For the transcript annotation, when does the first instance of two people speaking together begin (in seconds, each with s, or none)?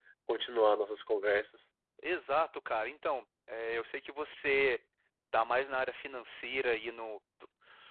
none